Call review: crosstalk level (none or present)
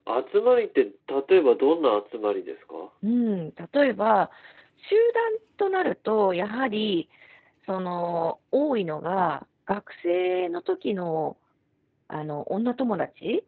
none